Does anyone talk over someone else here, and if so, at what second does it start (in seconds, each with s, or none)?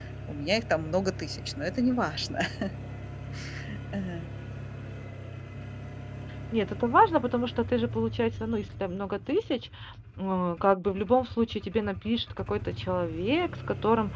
none